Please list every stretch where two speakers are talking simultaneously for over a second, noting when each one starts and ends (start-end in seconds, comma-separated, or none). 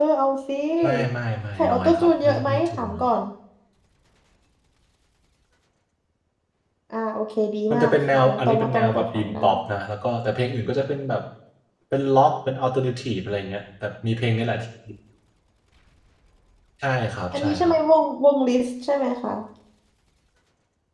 1.6-3.0, 7.7-9.4